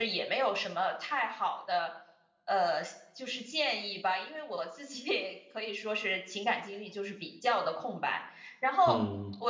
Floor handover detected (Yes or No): No